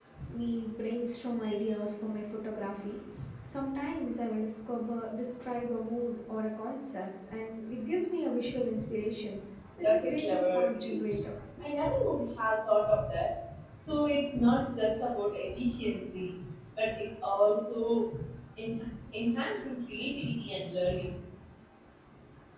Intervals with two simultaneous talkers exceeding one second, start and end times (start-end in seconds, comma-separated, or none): 9.8-11.2